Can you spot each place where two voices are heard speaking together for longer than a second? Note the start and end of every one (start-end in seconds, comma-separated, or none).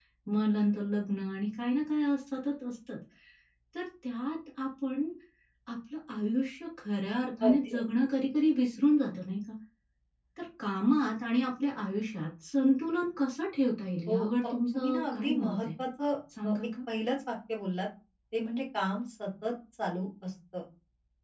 14.1-15.7